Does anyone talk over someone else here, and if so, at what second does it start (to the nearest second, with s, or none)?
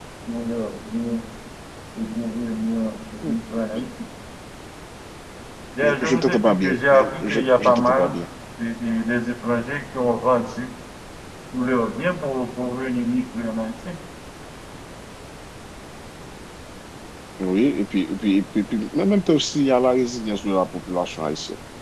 6 s